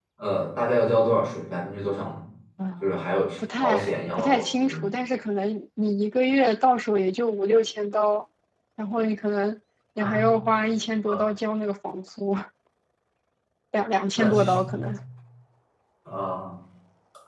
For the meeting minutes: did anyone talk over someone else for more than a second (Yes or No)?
Yes